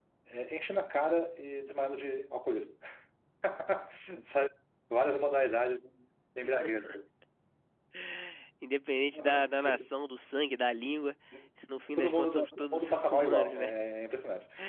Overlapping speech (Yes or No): Yes